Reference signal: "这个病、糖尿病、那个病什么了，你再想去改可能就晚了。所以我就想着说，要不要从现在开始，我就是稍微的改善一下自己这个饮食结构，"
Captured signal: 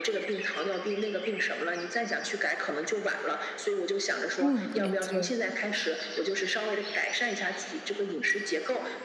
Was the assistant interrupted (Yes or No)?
Yes